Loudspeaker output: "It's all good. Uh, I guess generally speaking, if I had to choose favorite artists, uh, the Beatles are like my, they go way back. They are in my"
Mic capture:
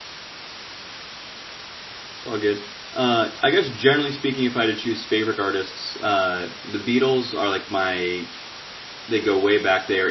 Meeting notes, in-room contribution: none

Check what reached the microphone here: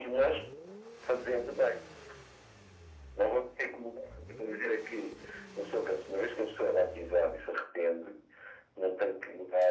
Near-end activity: none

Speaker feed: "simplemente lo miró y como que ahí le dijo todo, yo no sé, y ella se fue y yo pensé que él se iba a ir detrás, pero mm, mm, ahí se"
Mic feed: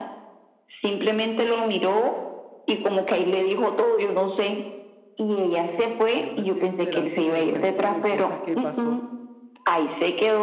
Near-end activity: present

